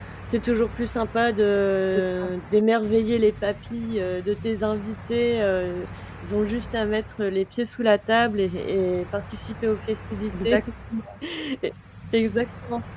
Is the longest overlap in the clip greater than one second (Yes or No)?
No